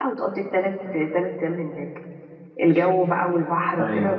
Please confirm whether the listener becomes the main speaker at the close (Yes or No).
No